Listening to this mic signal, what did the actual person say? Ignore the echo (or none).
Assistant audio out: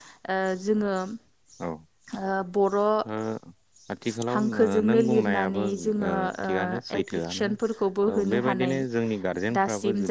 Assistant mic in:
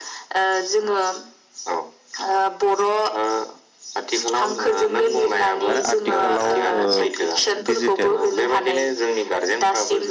आरो आथिखालाव ओ दिडिजिटेल